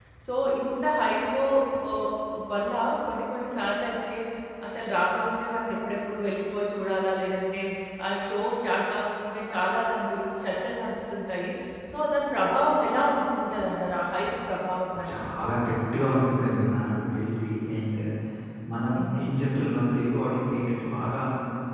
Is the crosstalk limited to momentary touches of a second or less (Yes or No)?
Yes